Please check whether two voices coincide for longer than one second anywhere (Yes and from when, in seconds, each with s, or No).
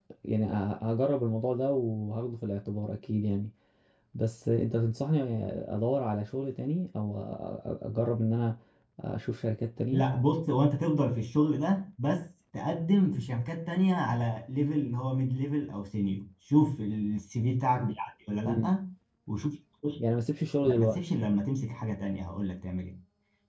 No